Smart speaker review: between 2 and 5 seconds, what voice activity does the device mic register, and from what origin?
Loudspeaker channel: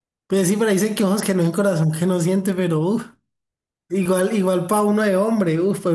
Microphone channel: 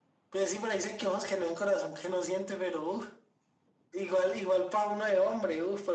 echo only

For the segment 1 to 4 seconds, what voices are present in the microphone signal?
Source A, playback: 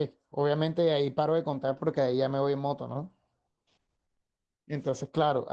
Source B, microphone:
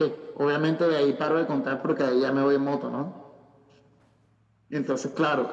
echo only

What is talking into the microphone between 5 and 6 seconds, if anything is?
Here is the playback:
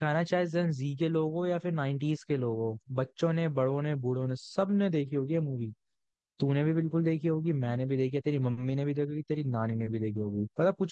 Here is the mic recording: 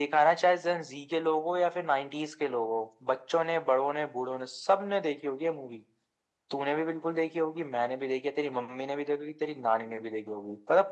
echo only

